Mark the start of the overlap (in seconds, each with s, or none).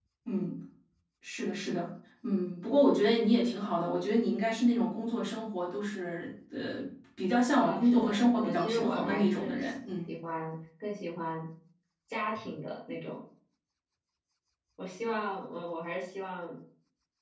7.5 s